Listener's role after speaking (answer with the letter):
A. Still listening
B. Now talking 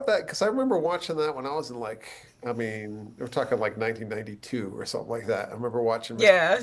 A